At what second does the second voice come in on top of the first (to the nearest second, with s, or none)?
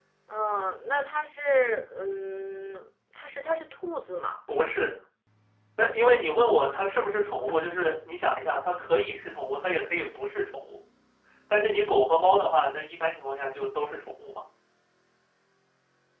none